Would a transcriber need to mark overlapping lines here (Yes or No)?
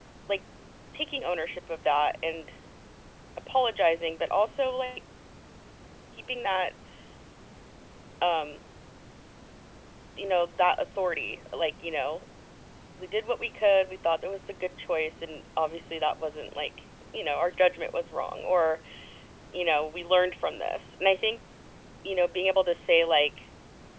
No